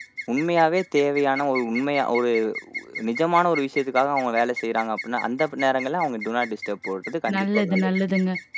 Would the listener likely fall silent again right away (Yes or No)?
No